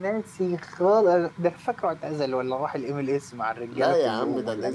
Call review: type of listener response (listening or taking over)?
taking over